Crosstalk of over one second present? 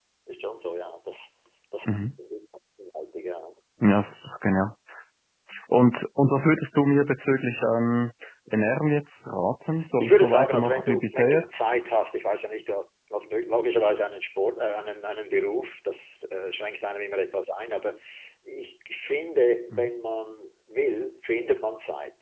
Yes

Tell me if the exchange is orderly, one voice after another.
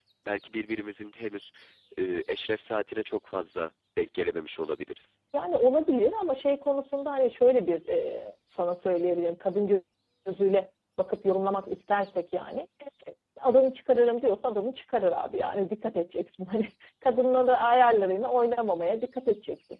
Yes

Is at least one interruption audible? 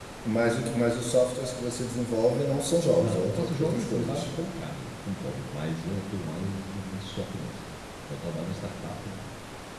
Yes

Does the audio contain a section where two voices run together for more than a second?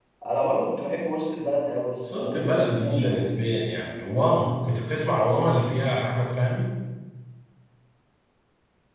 Yes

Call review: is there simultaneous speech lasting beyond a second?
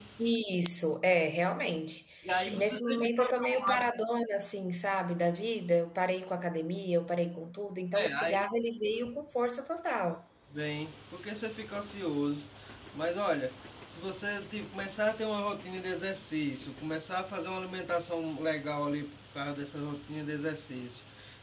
Yes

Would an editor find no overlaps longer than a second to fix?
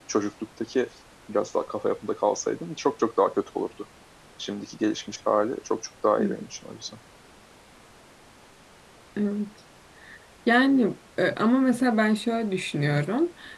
Yes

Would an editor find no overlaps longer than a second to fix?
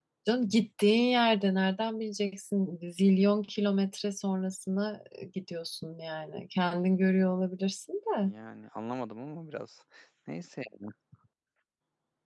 Yes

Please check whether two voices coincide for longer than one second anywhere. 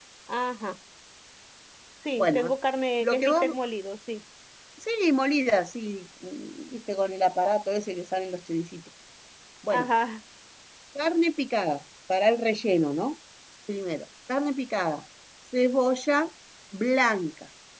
No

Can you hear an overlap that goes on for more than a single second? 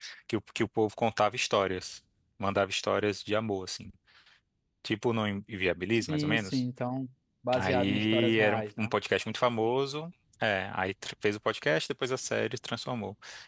Yes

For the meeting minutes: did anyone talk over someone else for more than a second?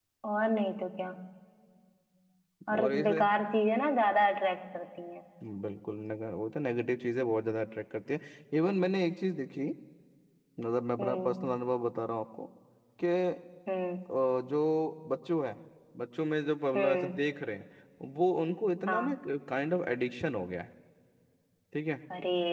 No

